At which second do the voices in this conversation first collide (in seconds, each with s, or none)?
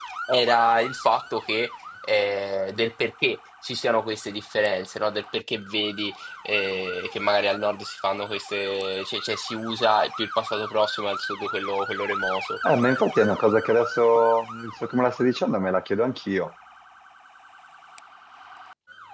none